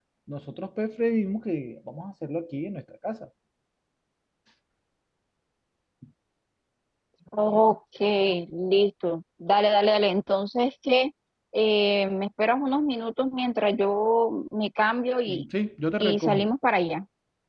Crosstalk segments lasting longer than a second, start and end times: none

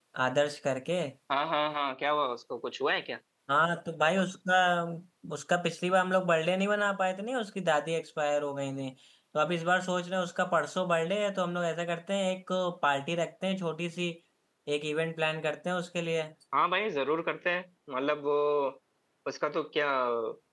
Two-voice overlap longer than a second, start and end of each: none

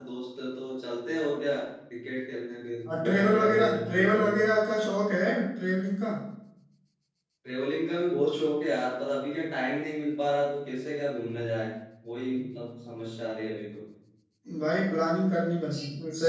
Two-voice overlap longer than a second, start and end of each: 2.9-4.2

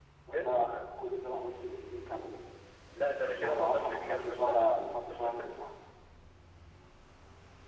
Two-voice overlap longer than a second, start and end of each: 3.2-4.7

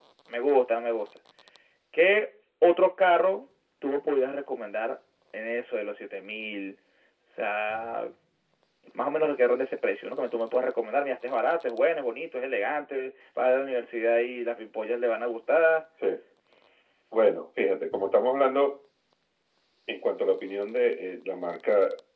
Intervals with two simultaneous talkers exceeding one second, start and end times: none

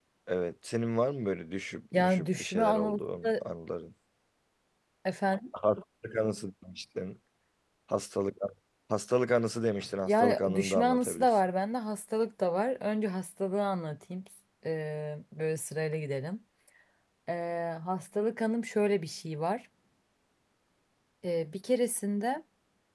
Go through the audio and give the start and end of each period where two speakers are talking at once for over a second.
1.9-3.4, 10.0-11.4

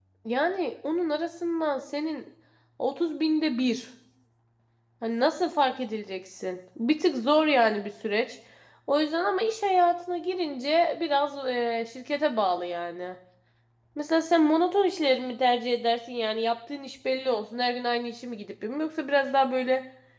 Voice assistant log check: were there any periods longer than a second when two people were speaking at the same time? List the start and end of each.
none

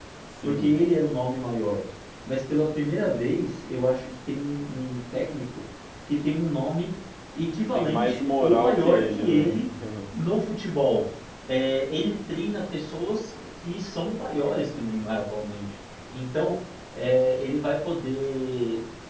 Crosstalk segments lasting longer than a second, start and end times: 7.7-9.5

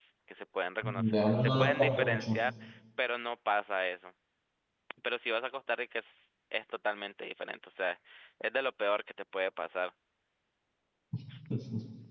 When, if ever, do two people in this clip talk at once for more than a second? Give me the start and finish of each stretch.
0.8-2.4

